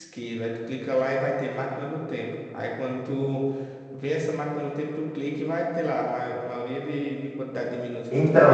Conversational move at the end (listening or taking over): taking over